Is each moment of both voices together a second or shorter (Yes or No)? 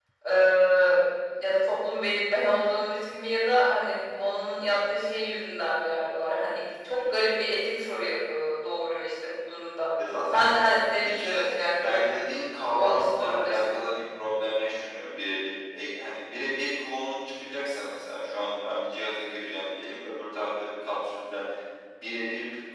No